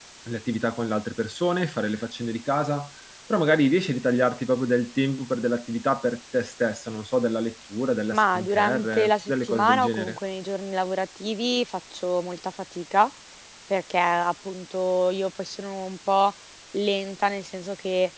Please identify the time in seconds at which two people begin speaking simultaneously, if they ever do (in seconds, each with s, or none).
8.1 s